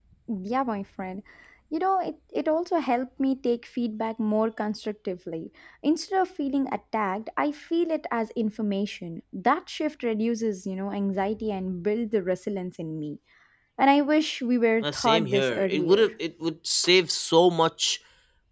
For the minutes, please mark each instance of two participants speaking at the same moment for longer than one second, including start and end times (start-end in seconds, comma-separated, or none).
14.8-16.1